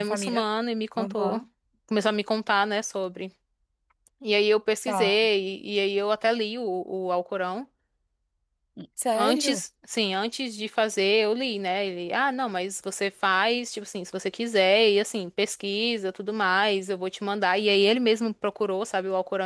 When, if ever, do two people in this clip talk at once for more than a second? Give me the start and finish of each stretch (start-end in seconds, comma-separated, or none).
none